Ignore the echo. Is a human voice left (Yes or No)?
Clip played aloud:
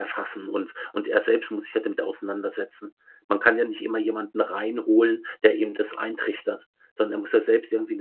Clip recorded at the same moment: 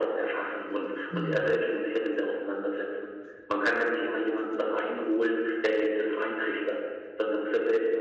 Yes